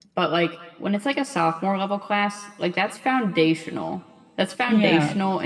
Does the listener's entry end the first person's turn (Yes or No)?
No